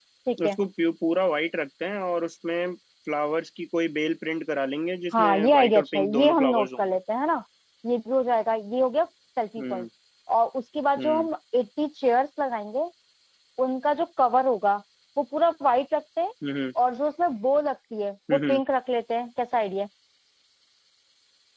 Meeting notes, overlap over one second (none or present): present